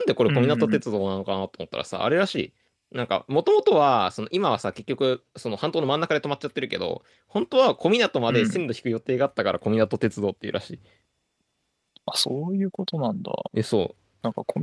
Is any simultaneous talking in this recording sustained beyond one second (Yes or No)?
No